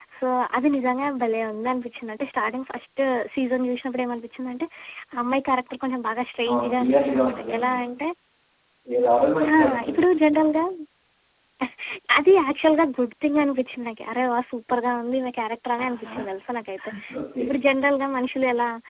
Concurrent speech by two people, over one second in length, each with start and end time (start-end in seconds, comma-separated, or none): 6.5-7.8